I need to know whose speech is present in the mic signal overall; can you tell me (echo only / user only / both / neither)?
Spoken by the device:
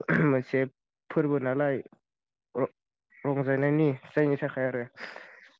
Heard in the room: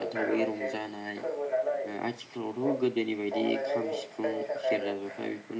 both